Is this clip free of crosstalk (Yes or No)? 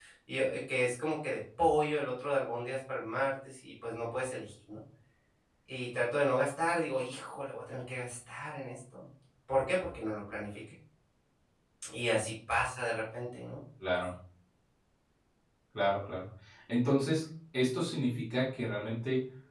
Yes